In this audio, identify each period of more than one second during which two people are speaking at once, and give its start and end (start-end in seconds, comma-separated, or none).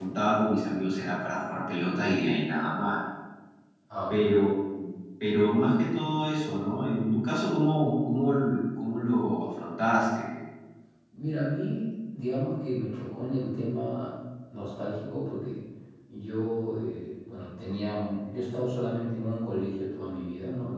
none